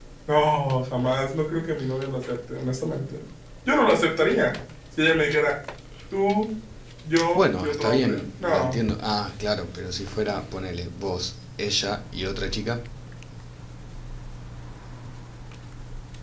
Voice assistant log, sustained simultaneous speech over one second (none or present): present